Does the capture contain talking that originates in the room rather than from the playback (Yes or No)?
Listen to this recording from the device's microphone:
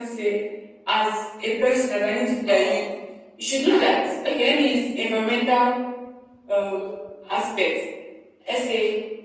No